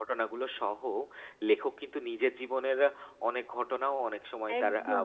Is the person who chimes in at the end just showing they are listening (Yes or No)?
No